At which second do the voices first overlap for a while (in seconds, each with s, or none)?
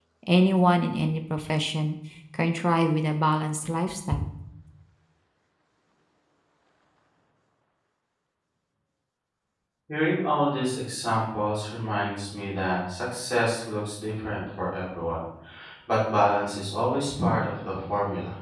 none